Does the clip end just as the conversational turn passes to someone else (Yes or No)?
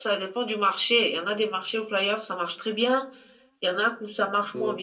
No